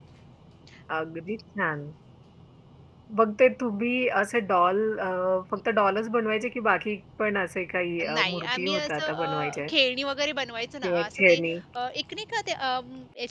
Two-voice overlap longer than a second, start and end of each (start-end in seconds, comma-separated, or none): 8.0-9.7